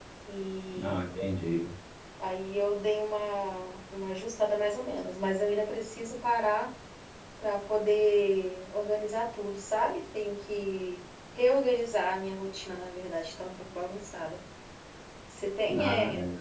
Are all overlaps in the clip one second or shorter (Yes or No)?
Yes